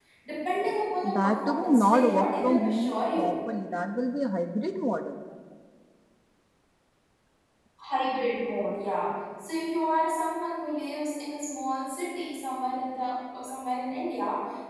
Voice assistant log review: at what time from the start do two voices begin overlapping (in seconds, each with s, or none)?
1.0 s